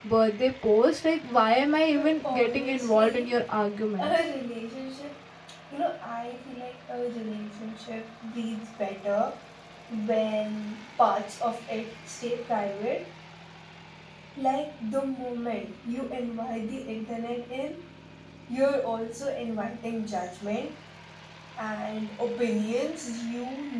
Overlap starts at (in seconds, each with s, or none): 1.9 s